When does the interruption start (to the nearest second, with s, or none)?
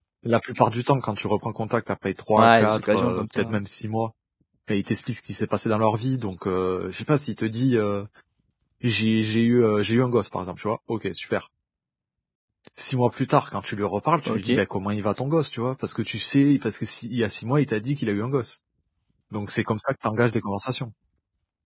2 s